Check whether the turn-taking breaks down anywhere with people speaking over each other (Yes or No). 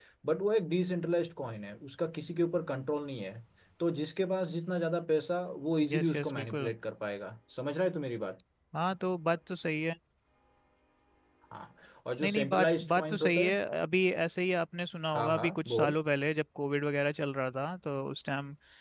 Yes